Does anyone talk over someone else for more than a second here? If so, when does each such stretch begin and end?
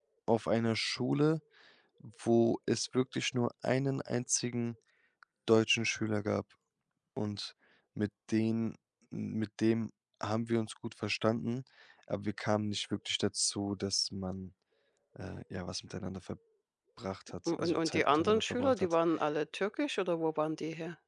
17.5-18.9

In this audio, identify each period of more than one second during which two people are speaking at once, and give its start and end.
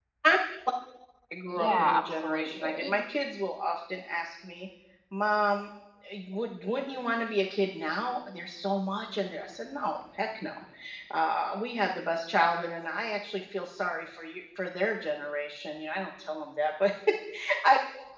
1.4-3.0

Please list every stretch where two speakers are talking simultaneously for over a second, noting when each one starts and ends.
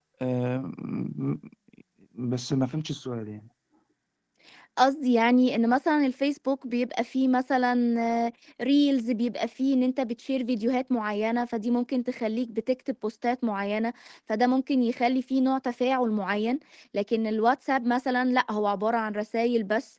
none

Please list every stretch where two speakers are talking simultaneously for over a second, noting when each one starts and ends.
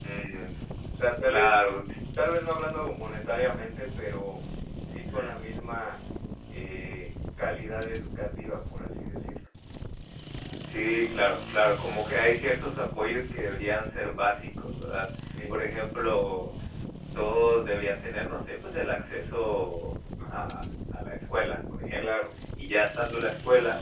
none

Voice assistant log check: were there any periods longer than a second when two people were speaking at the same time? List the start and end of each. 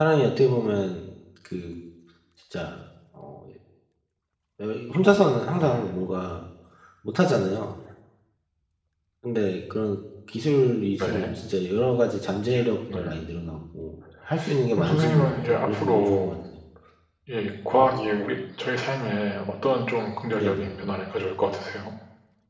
14.8-16.3

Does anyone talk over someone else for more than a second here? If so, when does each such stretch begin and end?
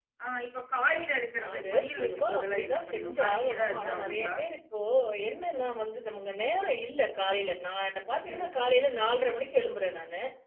1.5-4.3

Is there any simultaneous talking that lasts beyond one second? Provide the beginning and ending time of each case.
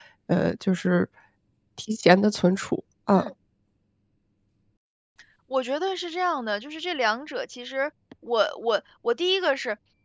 none

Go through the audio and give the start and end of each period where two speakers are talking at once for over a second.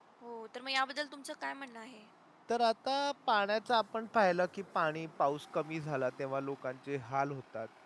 none

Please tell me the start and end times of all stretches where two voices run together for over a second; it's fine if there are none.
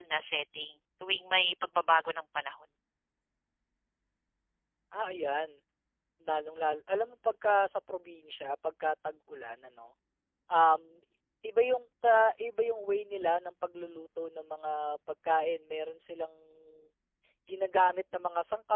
none

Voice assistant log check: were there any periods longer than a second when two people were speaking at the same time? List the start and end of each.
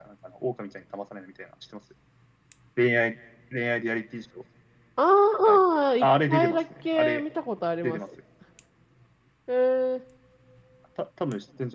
6.0-7.2

